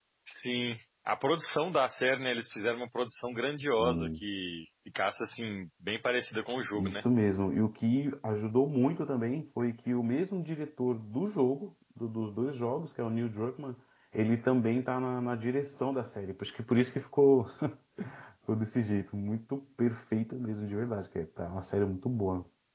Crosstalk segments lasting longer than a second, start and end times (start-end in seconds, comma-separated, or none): none